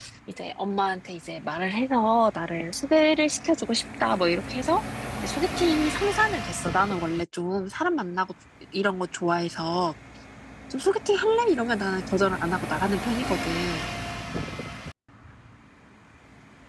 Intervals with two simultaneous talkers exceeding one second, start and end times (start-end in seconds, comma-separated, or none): none